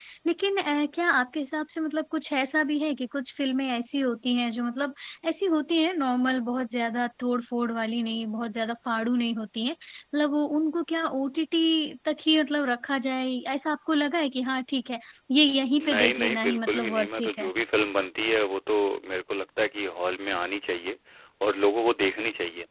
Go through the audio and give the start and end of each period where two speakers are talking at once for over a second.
15.8-17.5

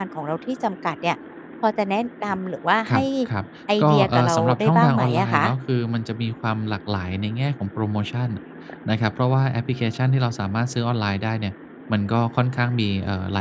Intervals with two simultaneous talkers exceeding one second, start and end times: 3.8-5.4

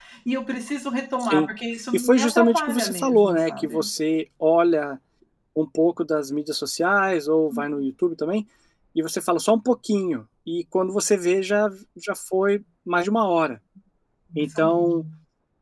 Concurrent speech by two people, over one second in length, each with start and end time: 1.9-3.8

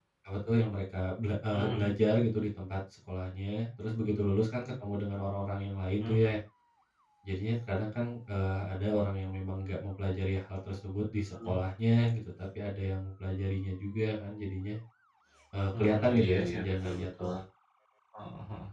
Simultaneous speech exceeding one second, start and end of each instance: 15.8-17.3

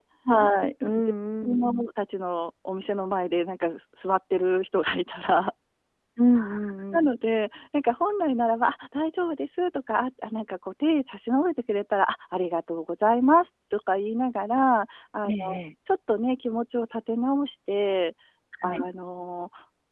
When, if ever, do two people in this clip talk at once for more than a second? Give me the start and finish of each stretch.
none

